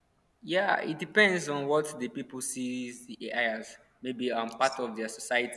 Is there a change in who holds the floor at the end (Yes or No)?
No